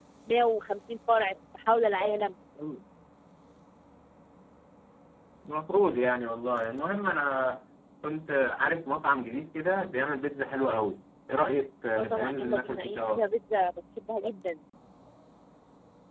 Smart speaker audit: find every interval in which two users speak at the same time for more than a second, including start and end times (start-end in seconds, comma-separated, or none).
11.9-13.2